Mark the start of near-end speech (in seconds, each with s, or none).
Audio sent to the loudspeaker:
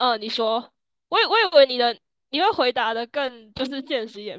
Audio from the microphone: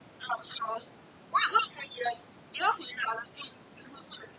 none